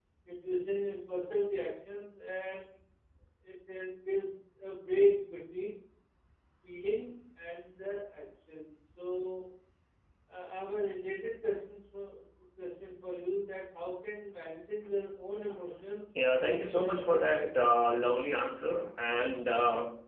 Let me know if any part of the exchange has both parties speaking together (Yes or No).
Yes